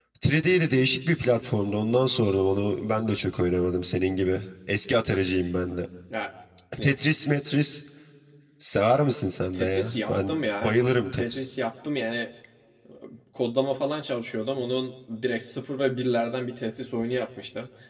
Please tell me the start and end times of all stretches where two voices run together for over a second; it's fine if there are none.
9.5-10.7

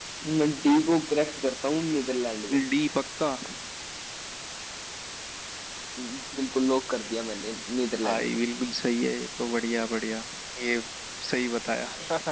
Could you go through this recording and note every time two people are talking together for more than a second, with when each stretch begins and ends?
none

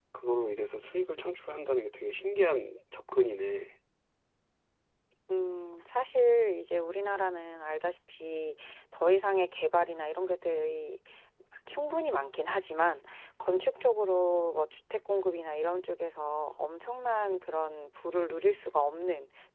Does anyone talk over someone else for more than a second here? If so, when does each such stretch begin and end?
none

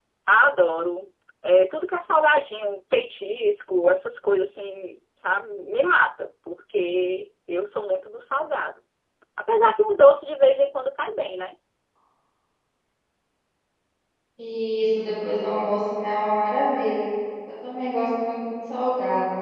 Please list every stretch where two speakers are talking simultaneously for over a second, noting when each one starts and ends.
none

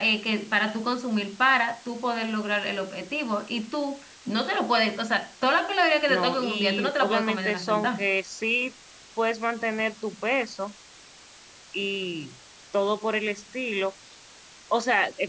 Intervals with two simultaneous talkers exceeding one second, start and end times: 6.1-8.1

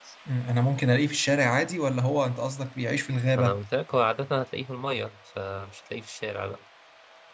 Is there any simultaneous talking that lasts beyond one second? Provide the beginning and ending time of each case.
none

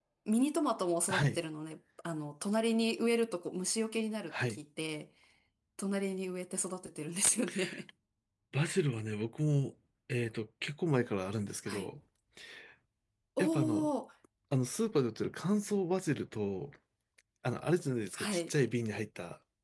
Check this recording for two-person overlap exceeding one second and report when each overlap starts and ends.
none

